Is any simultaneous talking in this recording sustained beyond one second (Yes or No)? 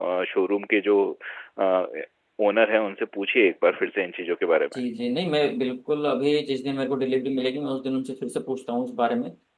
No